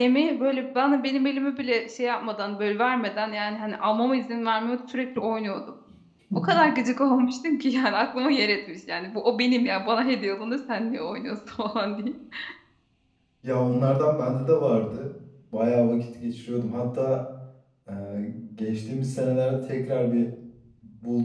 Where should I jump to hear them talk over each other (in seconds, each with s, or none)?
none